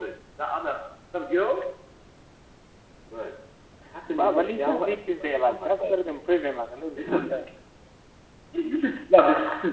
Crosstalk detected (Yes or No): Yes